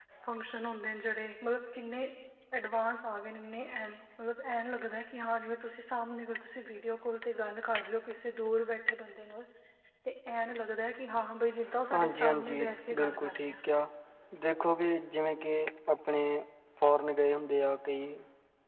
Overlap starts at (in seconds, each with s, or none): 11.9 s